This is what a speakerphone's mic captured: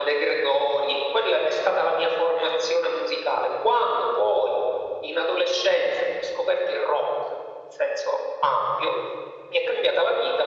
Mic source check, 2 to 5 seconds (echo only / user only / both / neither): echo only